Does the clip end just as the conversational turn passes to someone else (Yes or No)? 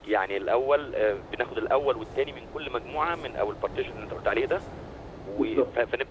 No